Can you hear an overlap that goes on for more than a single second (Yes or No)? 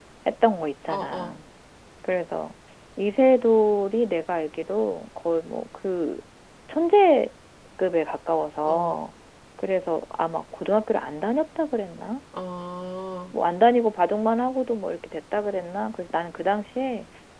No